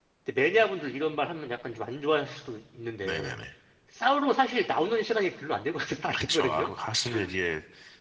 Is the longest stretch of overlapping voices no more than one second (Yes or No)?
Yes